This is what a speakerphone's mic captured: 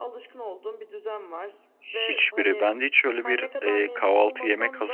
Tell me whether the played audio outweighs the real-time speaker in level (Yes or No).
No